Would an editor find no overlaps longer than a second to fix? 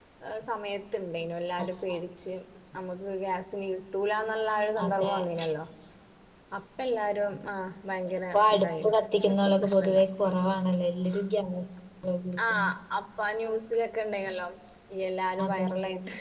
No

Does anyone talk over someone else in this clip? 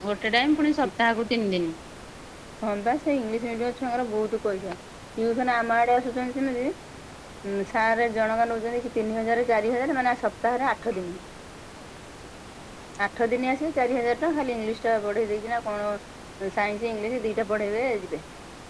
No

